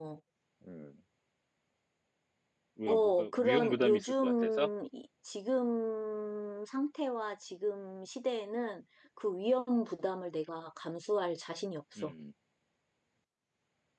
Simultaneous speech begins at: 2.9 s

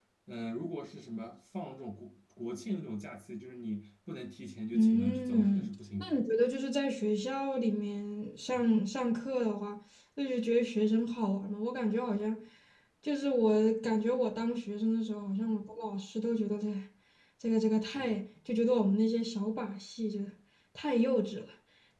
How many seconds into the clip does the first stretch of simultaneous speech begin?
4.7 s

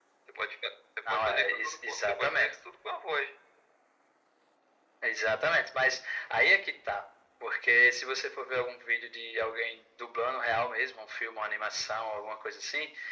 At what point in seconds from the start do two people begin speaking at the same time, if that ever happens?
1.1 s

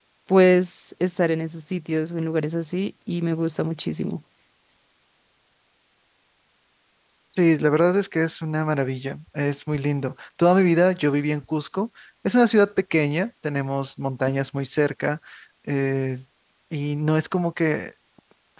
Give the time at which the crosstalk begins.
none

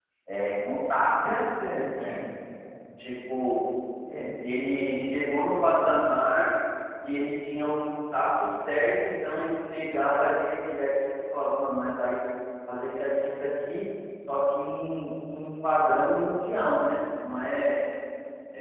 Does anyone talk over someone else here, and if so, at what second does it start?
none

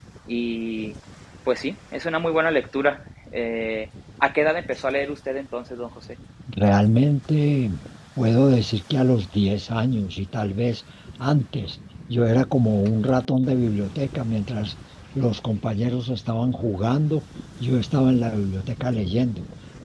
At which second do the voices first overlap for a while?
none

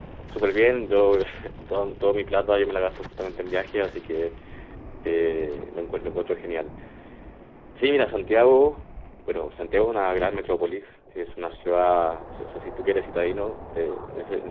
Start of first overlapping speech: none

